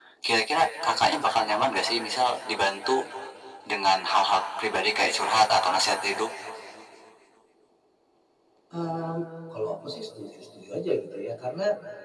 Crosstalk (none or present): none